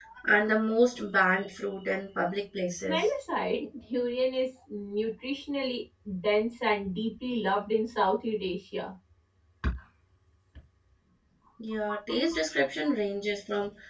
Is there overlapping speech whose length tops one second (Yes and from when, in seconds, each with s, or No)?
No